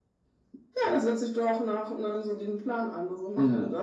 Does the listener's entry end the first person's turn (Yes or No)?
Yes